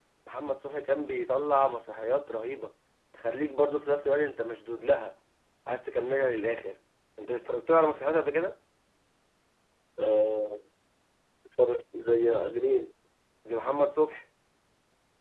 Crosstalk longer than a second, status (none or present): none